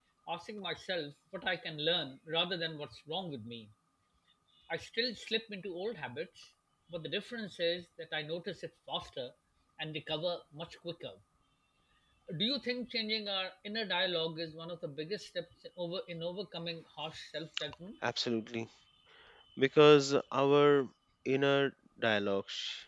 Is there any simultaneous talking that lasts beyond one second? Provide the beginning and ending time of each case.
none

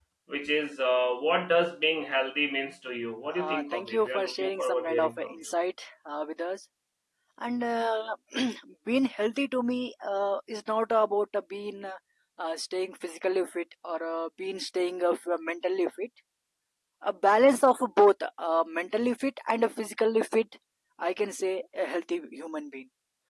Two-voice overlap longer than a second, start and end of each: 3.3-5.3

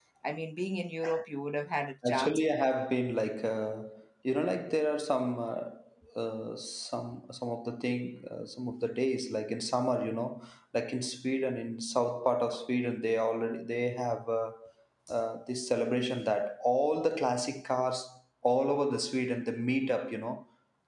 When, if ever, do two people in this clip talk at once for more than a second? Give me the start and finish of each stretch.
none

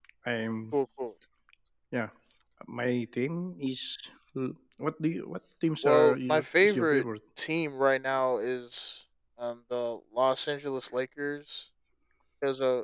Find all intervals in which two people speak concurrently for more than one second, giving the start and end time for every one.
5.8-7.0

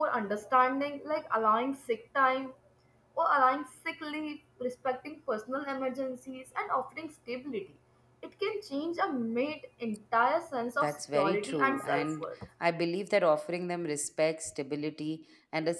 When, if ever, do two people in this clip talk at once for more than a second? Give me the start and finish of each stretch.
10.8-12.2

